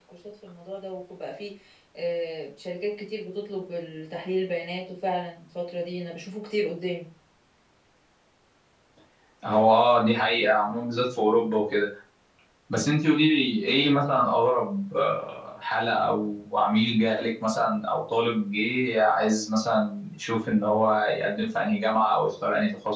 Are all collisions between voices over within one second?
Yes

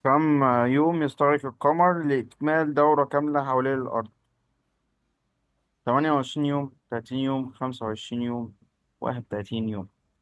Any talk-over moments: No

